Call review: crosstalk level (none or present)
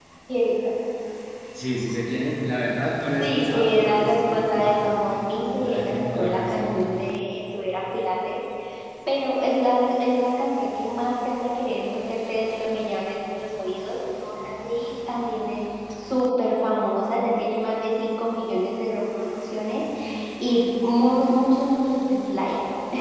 present